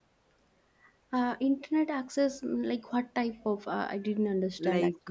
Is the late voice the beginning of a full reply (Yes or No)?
Yes